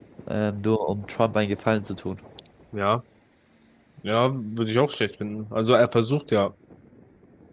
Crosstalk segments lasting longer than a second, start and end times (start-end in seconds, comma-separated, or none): none